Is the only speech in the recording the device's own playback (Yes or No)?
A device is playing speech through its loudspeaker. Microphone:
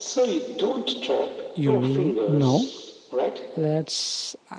No